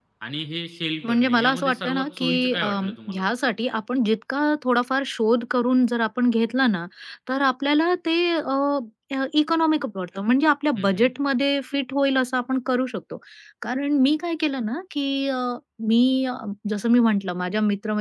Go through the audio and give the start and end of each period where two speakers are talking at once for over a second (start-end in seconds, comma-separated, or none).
1.0-3.2